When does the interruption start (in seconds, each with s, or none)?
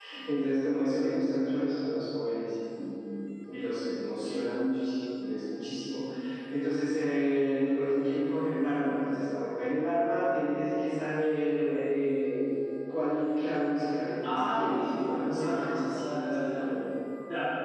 14.2 s